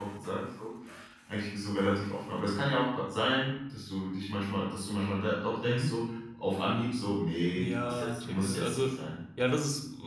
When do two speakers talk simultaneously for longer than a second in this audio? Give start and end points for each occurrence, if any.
7.5-8.9

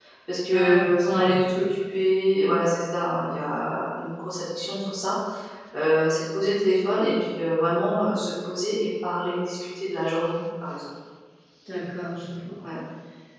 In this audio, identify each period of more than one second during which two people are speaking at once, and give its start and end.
0.5-1.7

